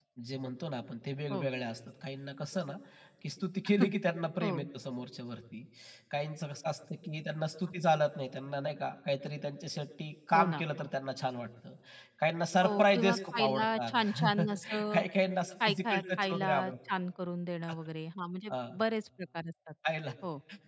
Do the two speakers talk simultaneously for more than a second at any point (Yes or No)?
Yes